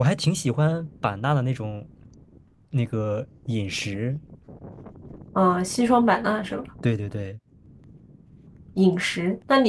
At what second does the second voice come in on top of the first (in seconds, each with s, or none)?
none